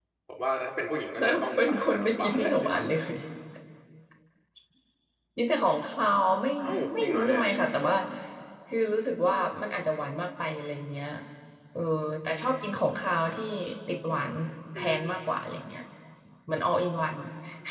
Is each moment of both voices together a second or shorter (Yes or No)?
No